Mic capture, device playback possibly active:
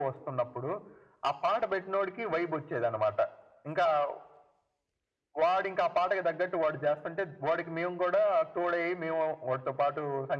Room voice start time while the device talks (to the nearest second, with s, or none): none